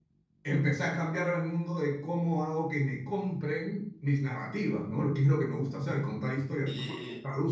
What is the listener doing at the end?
taking over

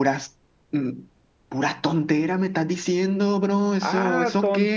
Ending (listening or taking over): taking over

